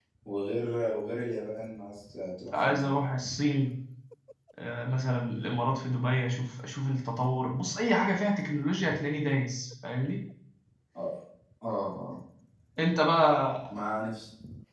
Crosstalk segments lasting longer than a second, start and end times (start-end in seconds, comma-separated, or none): none